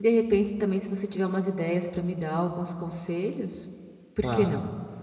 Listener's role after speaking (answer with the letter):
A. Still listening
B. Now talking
B